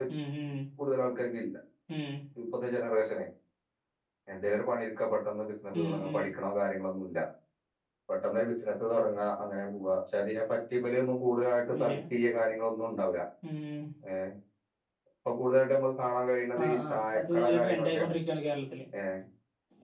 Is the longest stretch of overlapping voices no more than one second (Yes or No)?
No